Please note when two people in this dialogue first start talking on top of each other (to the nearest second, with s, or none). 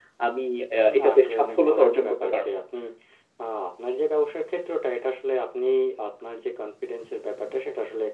1 s